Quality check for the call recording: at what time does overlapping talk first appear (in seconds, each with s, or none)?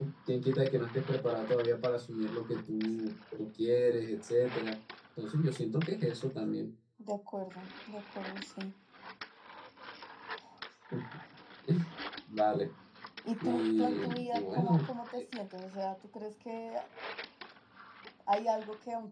13.4 s